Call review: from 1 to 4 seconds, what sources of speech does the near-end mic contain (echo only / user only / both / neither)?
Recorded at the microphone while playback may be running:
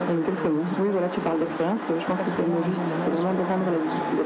both